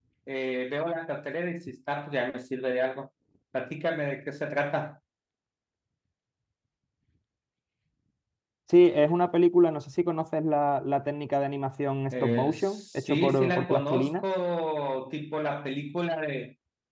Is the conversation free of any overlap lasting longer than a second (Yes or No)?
No